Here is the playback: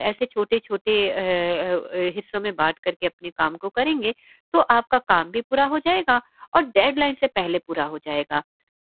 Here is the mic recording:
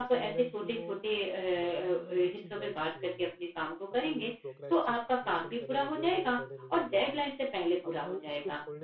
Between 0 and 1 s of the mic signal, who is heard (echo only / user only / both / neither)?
both